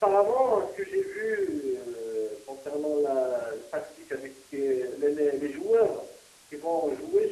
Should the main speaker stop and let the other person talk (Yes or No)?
No